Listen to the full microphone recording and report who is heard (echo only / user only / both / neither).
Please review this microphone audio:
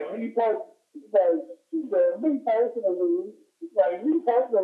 echo only